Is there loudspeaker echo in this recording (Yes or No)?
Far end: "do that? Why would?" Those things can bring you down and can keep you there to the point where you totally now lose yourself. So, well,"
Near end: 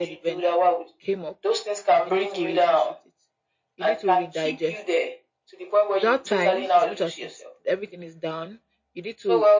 Yes